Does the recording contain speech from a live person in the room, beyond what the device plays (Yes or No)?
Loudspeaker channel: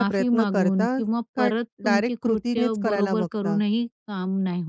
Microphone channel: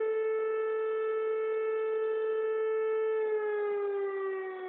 No